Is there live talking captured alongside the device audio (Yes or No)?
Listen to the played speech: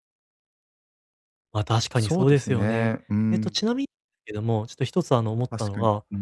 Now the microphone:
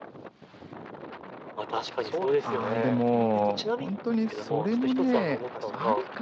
Yes